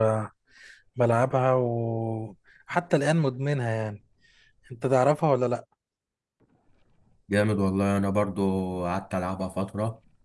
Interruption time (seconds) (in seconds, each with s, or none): none